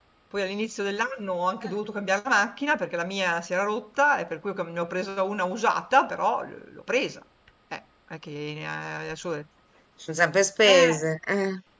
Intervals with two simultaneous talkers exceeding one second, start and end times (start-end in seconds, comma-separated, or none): none